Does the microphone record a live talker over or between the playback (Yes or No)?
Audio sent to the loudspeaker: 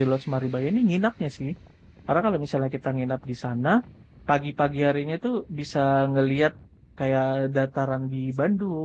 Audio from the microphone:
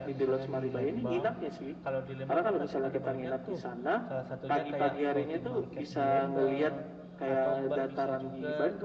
Yes